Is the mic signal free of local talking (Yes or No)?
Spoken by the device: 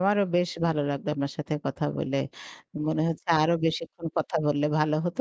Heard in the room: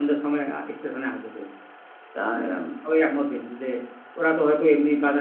No